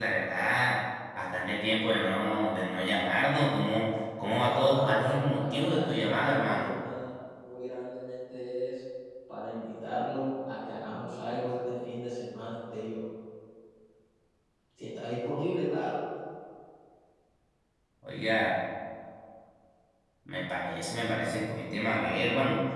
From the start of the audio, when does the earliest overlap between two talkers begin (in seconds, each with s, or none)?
4.3 s